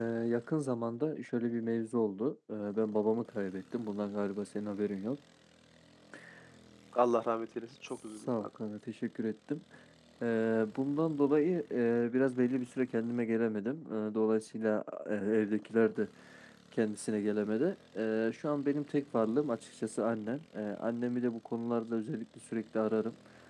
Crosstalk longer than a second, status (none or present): none